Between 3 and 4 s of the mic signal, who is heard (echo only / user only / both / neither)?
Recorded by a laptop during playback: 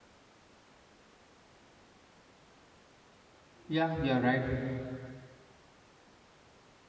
user only